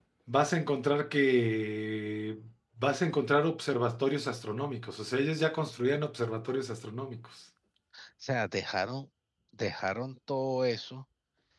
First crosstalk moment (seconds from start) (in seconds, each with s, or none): none